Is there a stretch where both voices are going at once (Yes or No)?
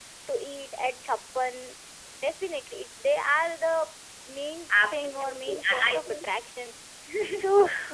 Yes